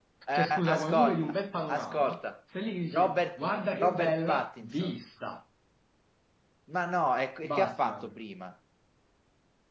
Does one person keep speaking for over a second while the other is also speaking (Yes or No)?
Yes